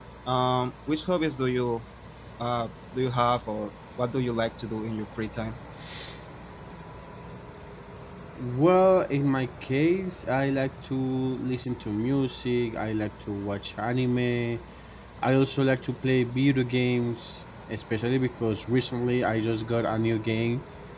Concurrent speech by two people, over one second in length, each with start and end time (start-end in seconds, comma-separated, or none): none